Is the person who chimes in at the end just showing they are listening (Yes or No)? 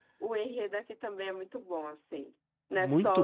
No